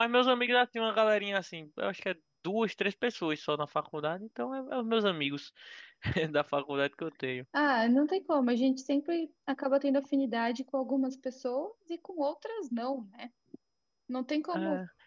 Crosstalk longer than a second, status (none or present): none